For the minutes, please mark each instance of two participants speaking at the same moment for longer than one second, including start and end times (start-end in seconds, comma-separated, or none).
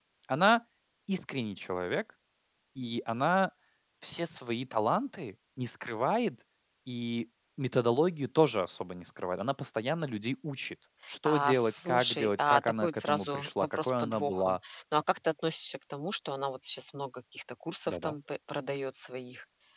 11.2-14.6